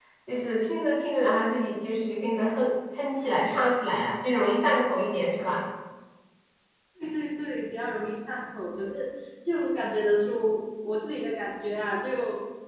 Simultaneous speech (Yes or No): No